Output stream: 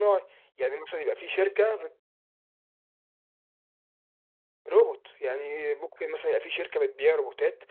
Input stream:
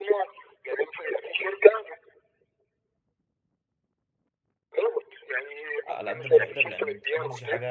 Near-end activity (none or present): present